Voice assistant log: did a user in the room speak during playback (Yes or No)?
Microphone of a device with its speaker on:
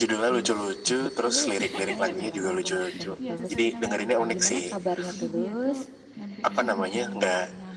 Yes